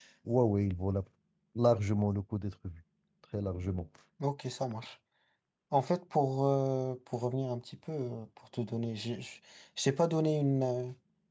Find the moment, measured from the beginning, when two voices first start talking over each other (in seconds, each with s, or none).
none